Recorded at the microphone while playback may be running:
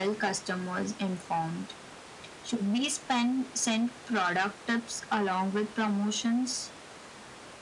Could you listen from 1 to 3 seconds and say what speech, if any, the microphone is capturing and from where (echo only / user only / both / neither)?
echo only